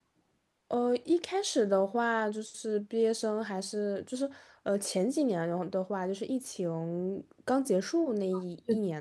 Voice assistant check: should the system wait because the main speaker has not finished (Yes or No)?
Yes